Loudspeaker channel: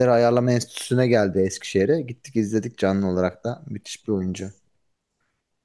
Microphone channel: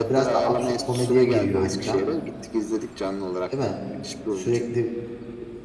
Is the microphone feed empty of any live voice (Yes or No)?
No